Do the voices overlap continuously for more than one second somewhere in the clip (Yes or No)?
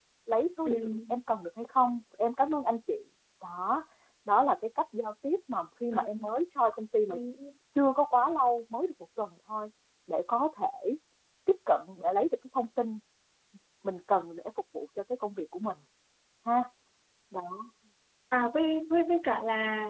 No